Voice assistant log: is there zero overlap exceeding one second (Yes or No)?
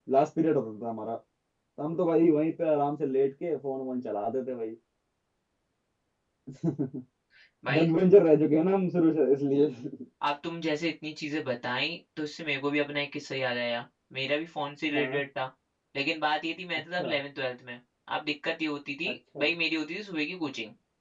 Yes